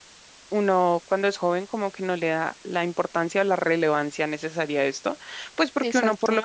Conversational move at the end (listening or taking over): listening